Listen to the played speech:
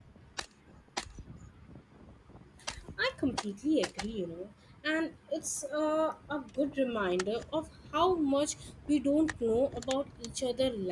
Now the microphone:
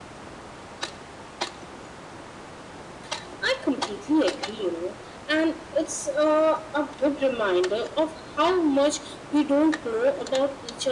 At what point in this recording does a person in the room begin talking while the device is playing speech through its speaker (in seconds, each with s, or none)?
none